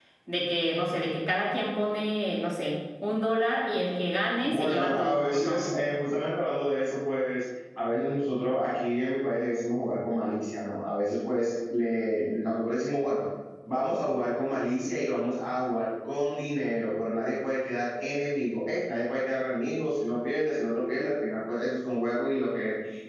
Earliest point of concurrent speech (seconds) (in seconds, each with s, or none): 4.4 s